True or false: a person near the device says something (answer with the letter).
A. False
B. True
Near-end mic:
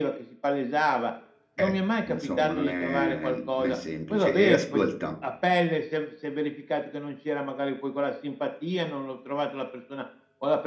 B